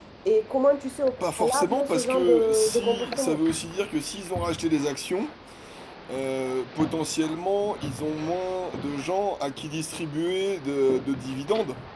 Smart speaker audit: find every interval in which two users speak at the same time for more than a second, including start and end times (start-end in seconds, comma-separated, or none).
1.2-3.4